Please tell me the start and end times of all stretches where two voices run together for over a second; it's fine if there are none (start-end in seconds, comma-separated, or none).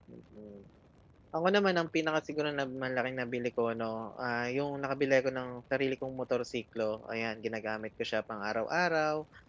none